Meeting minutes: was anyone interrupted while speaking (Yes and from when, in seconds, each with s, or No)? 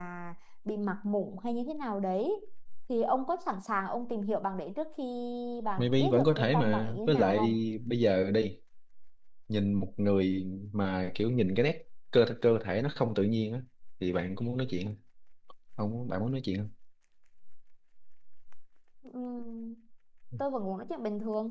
Yes, from 5.8 s